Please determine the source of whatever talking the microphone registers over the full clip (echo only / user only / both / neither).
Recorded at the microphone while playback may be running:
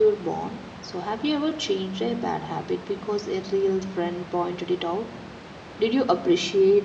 user only